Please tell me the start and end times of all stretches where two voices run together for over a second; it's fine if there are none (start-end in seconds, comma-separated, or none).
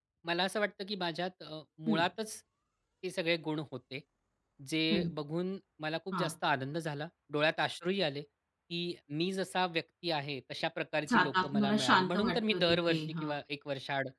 11.1-13.3